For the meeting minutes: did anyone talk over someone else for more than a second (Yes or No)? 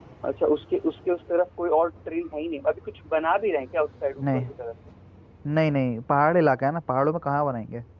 No